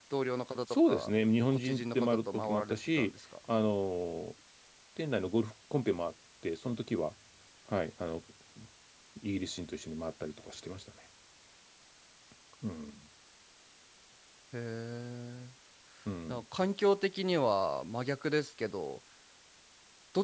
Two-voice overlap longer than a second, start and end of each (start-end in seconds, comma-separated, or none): 1.5-3.1